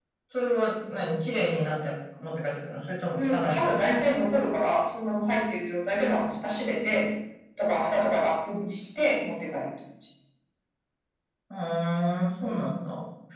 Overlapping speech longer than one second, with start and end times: 3.2-4.6

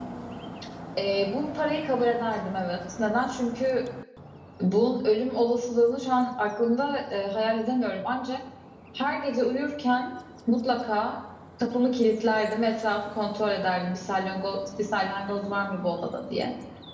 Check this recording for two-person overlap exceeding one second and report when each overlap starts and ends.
none

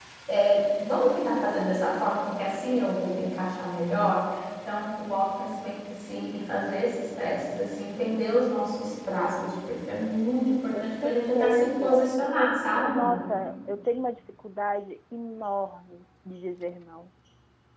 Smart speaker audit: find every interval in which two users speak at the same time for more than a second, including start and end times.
10.7-13.3

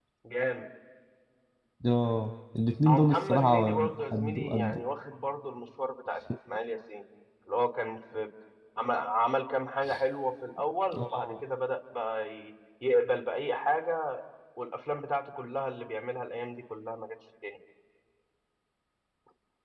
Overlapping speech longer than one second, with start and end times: 2.9-4.8

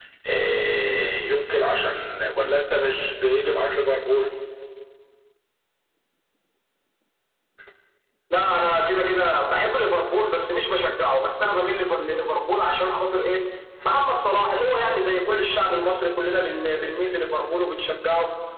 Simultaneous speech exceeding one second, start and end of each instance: none

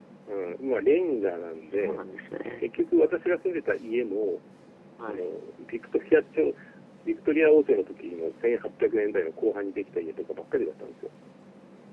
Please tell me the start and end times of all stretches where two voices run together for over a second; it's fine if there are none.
none

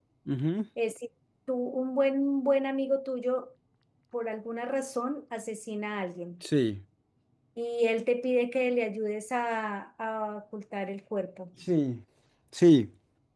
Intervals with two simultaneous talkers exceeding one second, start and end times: none

